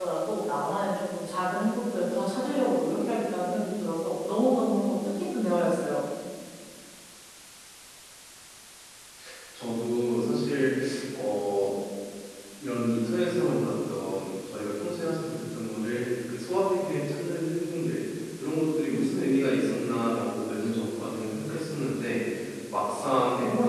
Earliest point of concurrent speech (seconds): none

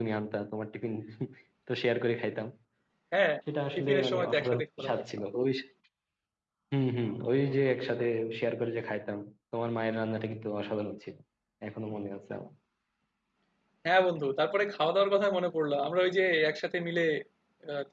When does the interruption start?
3.8 s

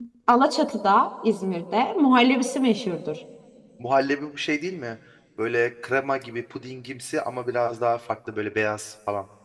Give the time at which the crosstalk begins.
none

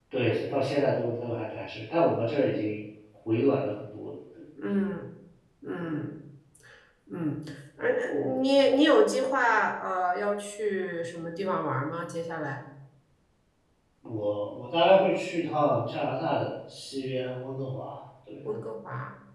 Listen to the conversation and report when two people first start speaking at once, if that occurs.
none

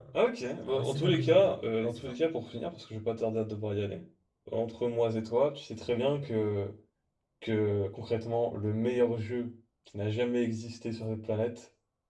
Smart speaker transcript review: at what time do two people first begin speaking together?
0.7 s

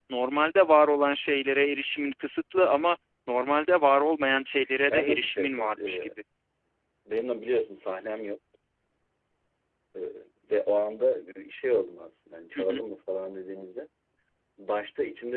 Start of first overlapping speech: 4.9 s

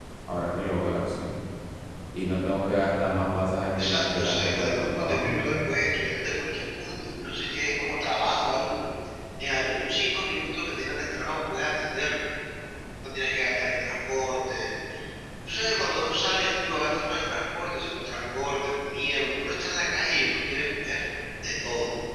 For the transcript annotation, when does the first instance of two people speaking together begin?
3.8 s

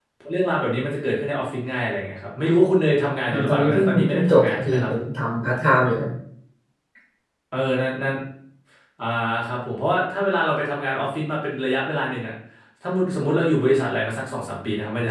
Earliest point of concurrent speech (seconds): 3.3 s

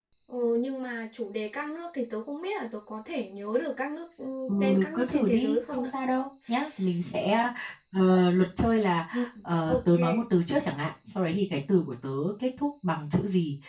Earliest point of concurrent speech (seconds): 4.5 s

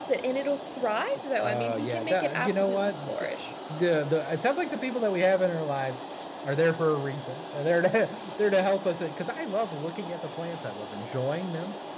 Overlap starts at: 1.4 s

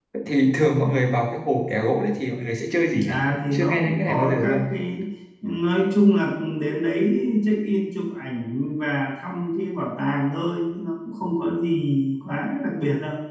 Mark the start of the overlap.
3.0 s

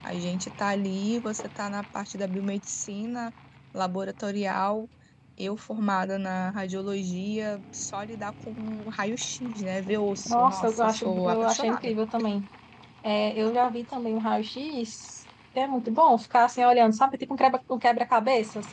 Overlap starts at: 10.3 s

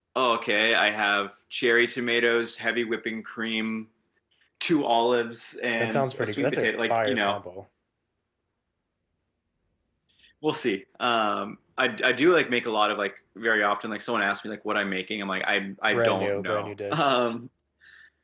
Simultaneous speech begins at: 5.8 s

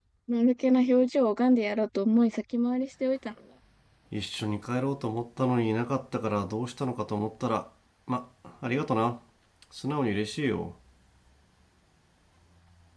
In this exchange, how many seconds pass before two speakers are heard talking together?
none

